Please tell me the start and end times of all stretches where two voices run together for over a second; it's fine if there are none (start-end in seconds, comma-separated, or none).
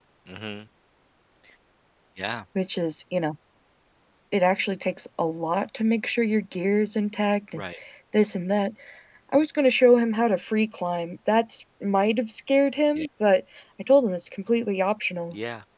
none